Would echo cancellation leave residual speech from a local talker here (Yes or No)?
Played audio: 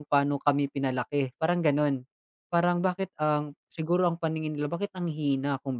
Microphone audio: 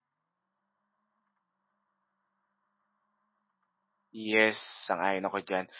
Yes